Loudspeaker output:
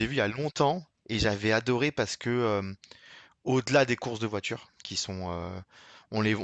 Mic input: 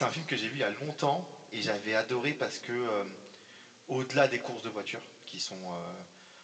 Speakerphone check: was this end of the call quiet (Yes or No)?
Yes